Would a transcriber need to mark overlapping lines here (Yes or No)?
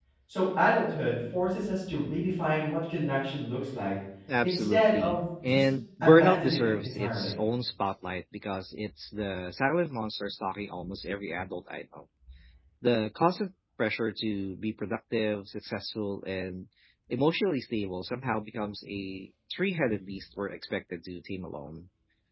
Yes